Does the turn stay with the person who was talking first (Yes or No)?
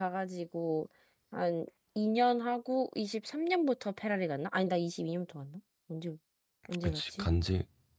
No